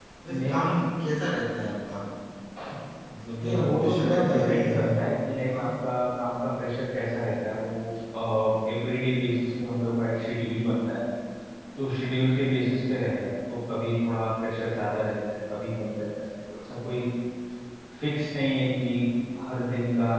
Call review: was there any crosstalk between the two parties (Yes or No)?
Yes